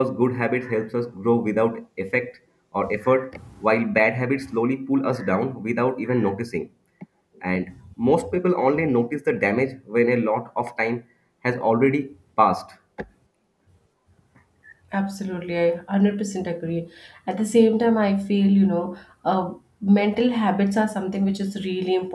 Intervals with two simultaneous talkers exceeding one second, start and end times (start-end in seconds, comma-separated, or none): none